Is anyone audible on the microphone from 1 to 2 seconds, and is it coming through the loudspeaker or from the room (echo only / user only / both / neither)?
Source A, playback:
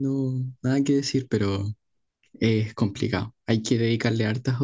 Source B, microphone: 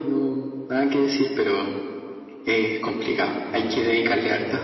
echo only